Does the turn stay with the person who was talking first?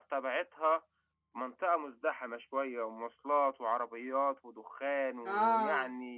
No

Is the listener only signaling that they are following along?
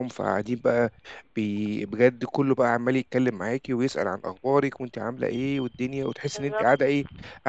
Yes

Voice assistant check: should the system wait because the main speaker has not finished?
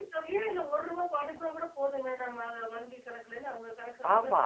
No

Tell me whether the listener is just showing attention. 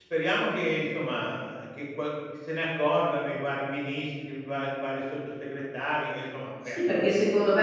No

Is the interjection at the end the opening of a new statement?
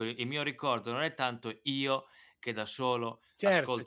No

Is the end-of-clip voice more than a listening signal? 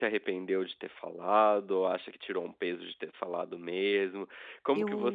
No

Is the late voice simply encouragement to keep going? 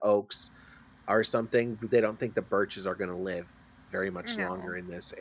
Yes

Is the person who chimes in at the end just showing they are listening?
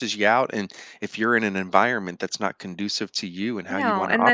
No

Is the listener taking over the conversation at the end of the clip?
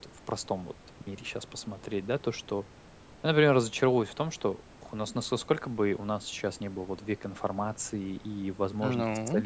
No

